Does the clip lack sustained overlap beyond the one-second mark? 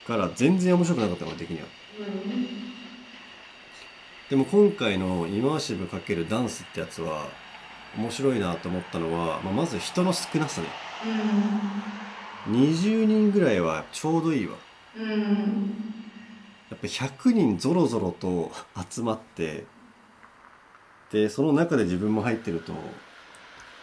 Yes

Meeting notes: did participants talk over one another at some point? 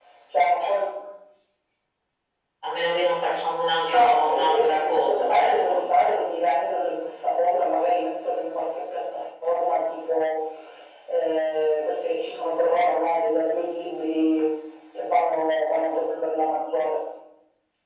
Yes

